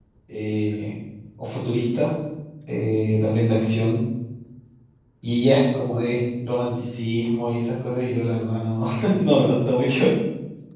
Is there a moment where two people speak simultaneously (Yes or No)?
No